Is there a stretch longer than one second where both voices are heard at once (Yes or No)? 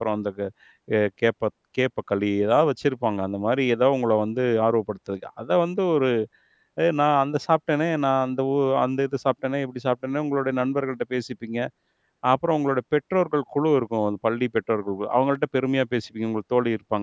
No